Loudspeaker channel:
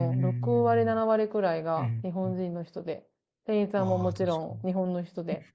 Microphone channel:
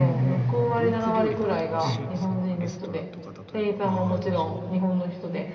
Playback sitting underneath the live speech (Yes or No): No